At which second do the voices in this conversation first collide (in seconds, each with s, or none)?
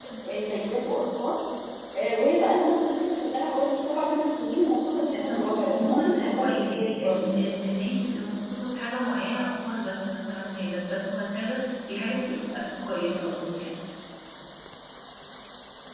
5.3 s